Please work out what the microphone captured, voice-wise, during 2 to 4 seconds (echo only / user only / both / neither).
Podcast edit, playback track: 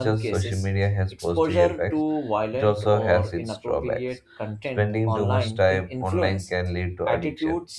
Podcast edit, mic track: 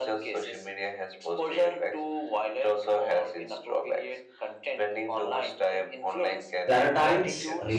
echo only